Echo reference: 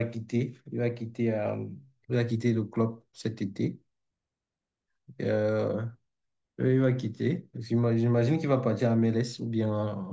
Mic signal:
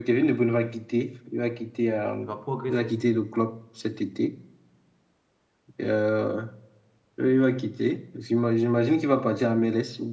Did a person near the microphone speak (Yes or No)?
Yes